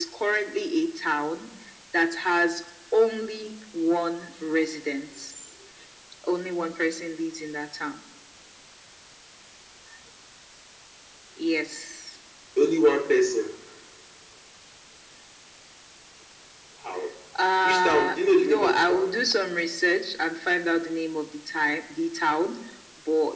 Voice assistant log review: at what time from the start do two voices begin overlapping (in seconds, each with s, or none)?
17.6 s